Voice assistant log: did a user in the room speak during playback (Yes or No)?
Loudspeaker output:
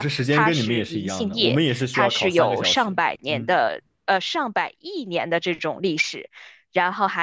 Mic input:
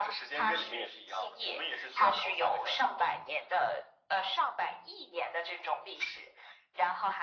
No